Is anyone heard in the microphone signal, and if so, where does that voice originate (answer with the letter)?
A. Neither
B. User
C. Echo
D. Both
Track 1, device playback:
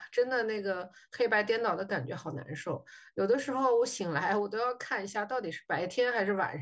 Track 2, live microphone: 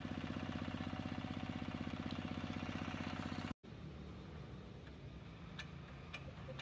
A